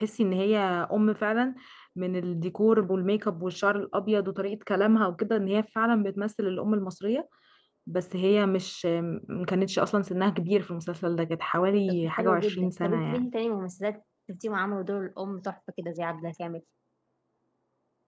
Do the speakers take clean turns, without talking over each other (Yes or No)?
No